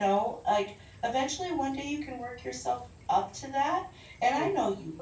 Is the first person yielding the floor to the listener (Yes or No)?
No